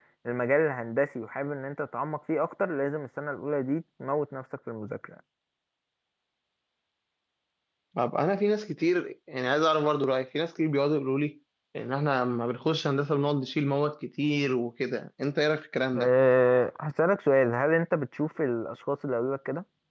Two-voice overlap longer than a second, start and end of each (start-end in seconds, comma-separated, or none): none